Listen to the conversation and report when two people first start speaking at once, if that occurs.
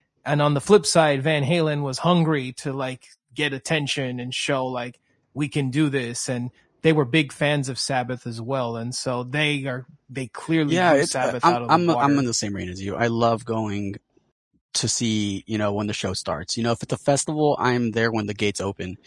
11 s

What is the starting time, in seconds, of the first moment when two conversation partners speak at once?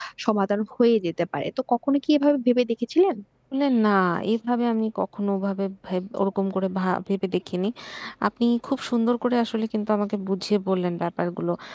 none

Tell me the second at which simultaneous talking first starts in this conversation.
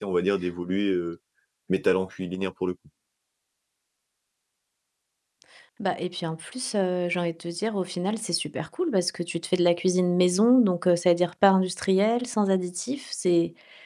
none

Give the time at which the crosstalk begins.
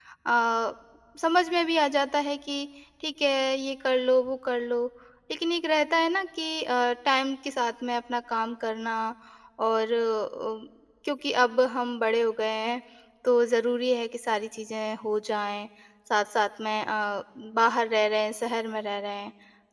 none

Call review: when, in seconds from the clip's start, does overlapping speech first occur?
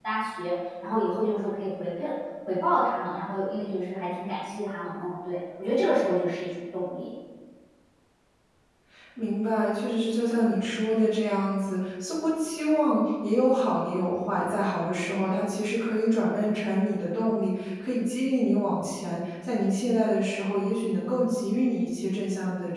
none

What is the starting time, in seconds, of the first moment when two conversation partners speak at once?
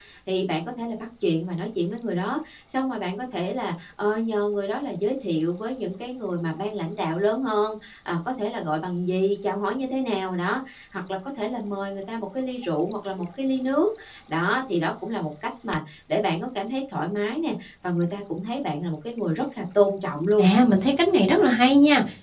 none

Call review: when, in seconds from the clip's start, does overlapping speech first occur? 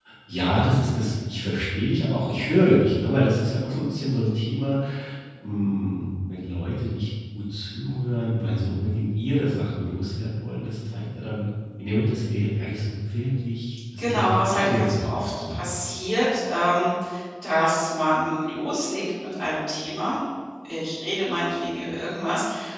14 s

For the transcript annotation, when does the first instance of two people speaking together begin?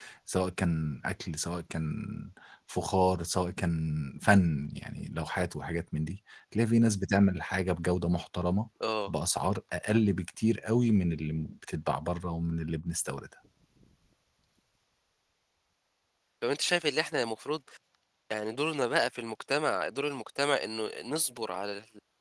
none

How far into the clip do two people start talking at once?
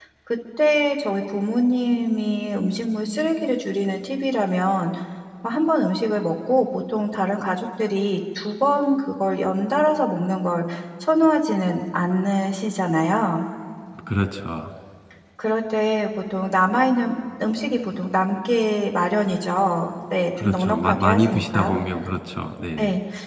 20 s

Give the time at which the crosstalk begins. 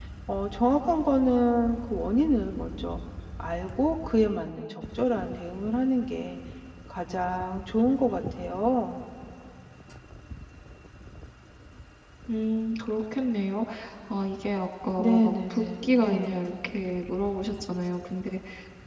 15 s

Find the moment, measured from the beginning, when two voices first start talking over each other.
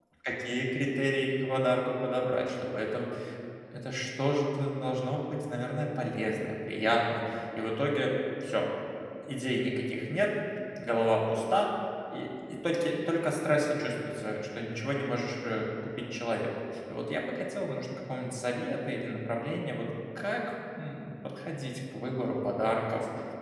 none

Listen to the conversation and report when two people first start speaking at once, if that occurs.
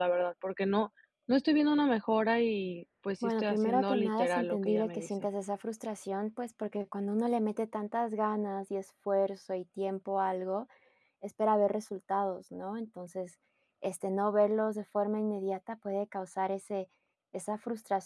3 s

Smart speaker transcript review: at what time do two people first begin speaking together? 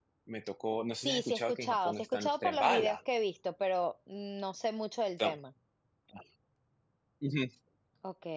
1 s

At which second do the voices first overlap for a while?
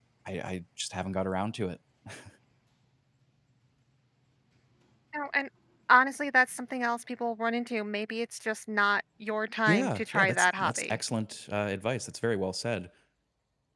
10 s

